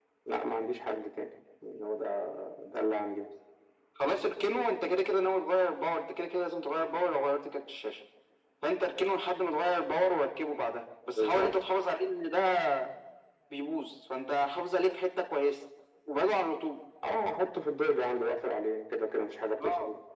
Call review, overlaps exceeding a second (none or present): none